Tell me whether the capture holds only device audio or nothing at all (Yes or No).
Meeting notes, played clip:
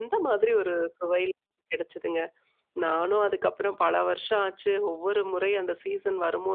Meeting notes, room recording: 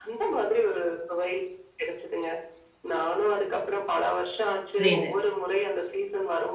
No